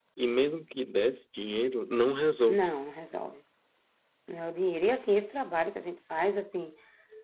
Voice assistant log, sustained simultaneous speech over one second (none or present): none